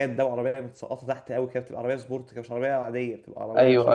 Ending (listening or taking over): taking over